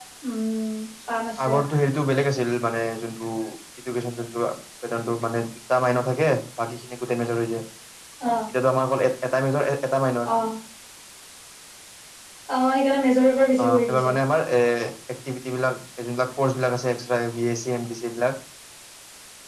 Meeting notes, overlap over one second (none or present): none